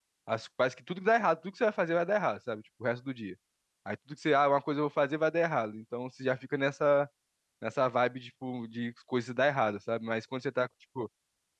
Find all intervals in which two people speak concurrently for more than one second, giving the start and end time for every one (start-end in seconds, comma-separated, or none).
none